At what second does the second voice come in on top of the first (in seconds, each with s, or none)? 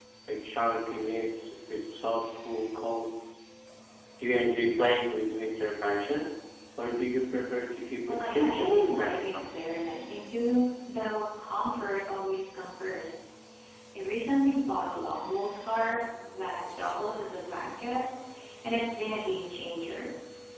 8.1 s